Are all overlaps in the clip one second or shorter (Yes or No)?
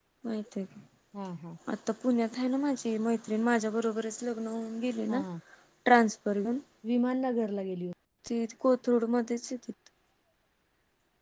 Yes